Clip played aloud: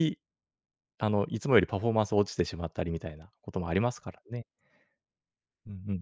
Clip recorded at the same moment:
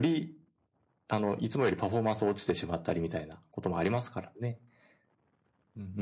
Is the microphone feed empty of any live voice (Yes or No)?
Yes